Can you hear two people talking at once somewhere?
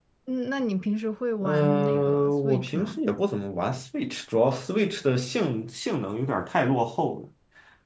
Yes, from 1.4 s

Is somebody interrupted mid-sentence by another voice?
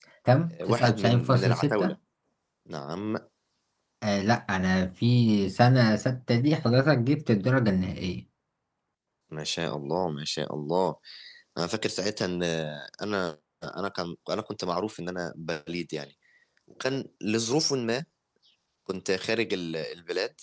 Yes, from 0.5 s

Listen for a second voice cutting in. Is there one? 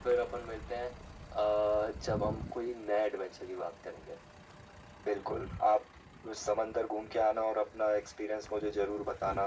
No

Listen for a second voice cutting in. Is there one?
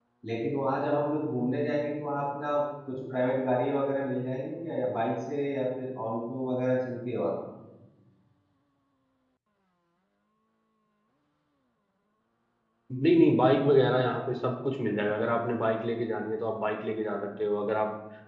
No

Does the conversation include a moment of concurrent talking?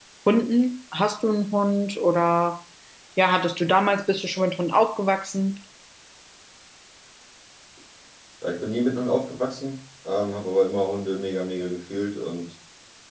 No

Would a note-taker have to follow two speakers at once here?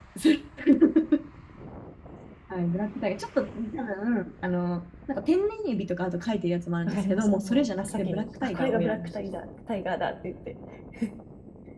Yes, from 6.9 s

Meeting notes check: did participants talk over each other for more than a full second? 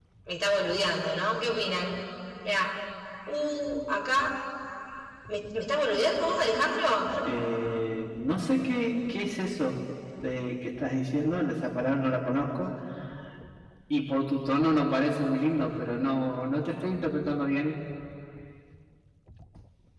No

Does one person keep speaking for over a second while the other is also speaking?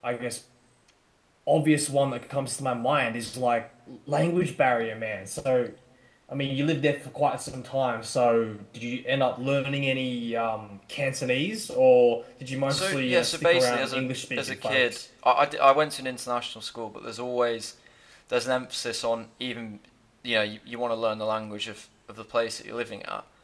Yes, from 12.7 s

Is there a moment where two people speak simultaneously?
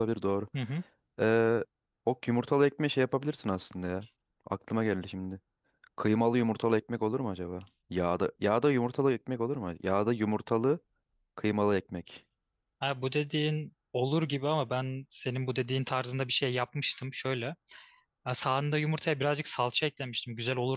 No

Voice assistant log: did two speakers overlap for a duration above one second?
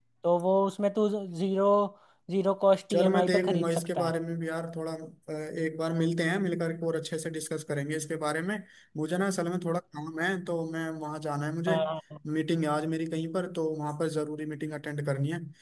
Yes, from 2.9 s

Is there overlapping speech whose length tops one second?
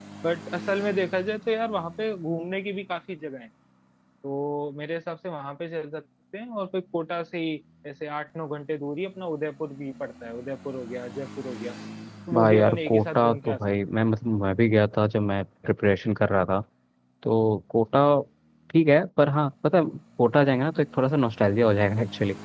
Yes, from 12.3 s

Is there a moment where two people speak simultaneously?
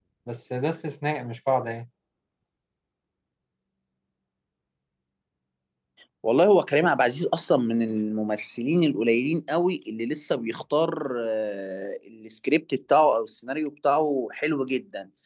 No

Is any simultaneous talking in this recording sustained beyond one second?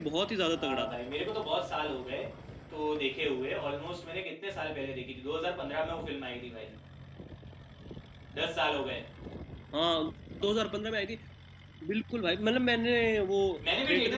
No

